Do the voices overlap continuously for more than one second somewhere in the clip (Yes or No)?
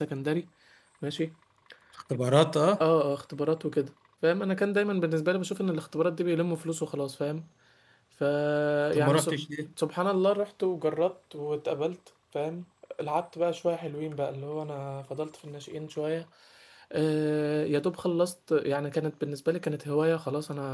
No